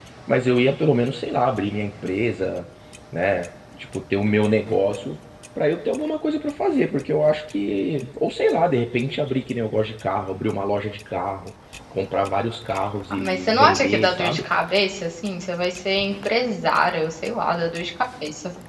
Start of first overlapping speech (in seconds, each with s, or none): 13.1 s